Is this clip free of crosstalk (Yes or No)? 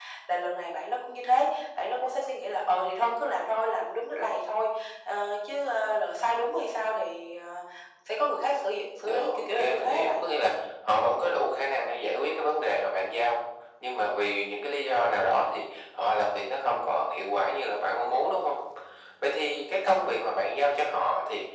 No